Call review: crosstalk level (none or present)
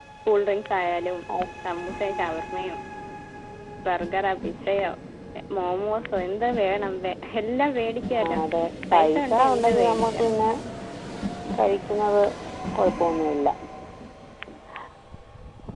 present